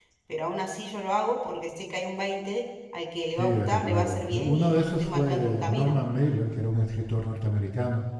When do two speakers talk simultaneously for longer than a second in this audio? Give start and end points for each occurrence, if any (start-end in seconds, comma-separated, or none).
3.4-5.9